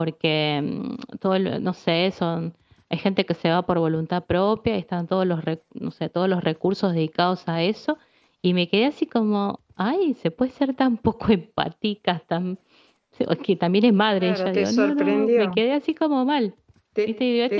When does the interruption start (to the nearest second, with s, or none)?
14 s